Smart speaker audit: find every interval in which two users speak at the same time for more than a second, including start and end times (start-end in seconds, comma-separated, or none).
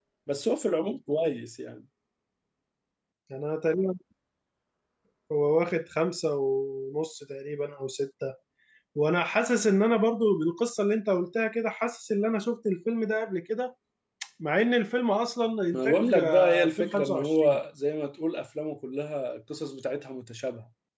15.7-17.6